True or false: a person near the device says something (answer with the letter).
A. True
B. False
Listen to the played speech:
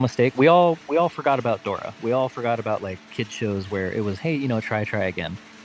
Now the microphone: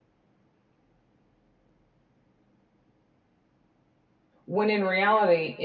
A